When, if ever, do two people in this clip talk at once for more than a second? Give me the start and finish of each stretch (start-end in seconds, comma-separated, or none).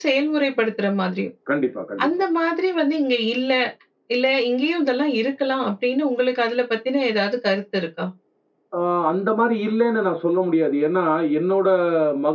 none